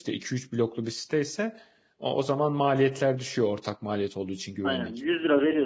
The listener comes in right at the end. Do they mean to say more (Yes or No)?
Yes